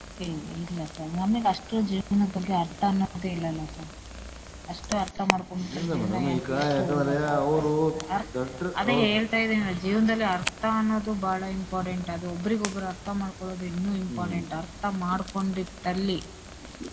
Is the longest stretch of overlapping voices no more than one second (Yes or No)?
No